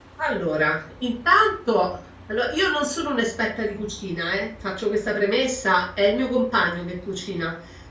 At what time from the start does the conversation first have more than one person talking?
none

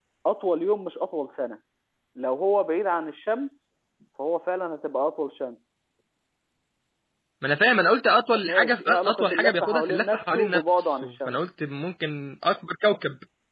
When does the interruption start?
8.4 s

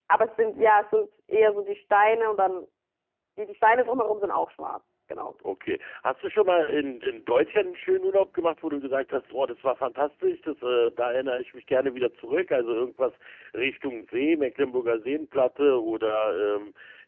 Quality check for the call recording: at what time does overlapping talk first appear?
none

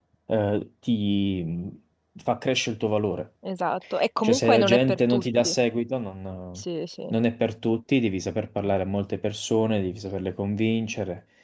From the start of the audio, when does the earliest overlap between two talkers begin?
4.2 s

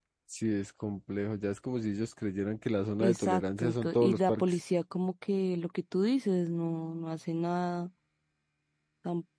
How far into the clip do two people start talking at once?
3.0 s

